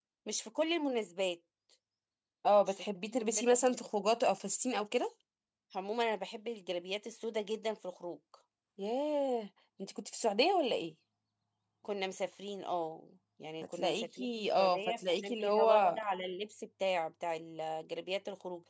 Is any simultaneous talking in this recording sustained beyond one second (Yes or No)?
Yes